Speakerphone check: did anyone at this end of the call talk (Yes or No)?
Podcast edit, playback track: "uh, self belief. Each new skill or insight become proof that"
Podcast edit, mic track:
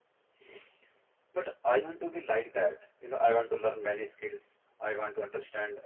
Yes